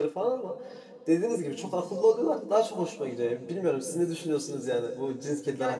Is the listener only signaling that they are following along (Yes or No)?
No